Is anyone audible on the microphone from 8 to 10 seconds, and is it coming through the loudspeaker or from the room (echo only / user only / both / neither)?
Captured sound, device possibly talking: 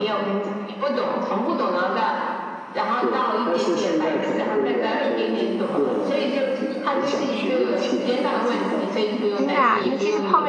both